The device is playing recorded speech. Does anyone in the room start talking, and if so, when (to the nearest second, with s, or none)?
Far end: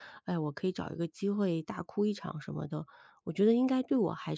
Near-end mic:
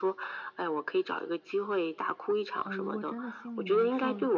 3 s